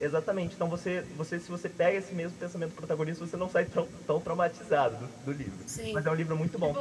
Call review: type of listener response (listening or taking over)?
taking over